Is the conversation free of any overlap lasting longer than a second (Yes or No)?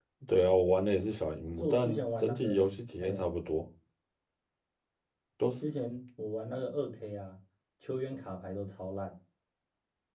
No